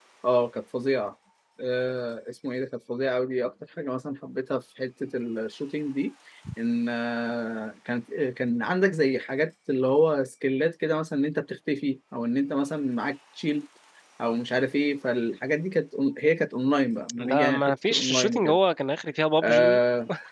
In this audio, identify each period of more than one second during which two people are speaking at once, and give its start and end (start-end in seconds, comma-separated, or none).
17.2-18.6